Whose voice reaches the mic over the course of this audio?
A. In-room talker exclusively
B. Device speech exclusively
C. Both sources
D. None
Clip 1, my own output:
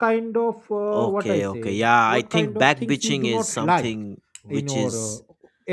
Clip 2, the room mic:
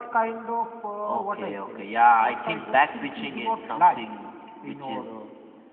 B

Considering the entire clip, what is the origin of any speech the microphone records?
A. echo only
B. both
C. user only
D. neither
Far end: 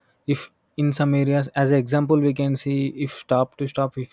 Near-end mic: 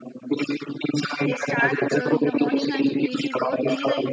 B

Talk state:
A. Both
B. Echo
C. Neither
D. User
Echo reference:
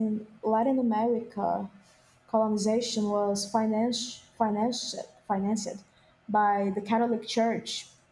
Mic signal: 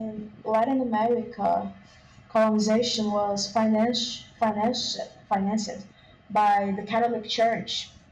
B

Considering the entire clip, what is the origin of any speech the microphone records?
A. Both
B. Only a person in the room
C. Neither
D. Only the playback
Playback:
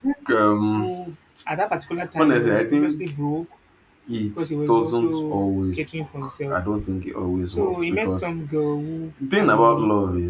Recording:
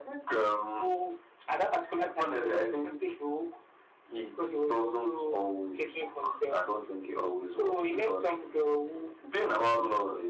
D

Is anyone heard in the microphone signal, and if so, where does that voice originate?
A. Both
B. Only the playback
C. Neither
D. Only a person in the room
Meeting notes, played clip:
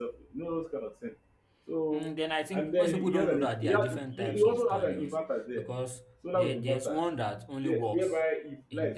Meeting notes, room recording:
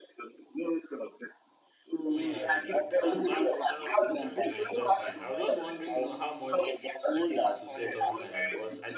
A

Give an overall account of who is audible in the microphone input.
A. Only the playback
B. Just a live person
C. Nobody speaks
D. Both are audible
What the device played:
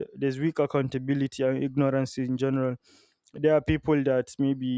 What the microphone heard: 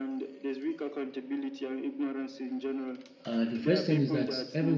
D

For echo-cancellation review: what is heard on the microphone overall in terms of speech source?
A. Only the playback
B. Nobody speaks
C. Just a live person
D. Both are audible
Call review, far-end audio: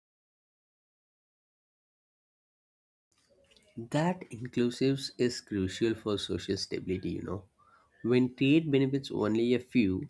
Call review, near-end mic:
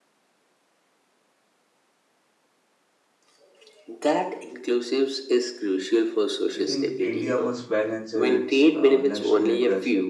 D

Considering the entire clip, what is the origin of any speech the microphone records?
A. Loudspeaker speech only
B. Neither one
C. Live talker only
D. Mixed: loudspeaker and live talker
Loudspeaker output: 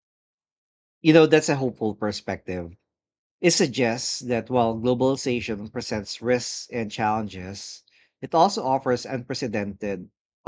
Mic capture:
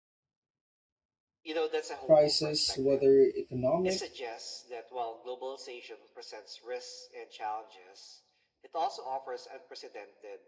D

